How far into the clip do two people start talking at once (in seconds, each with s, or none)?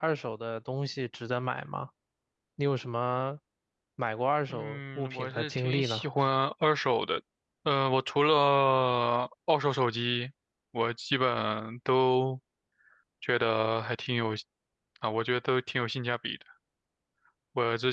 4.5 s